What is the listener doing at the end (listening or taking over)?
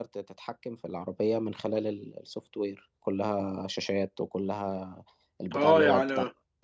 listening